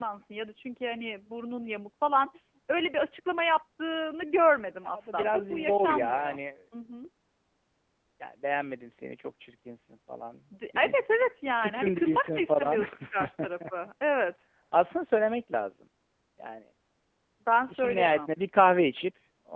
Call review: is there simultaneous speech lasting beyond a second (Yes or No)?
Yes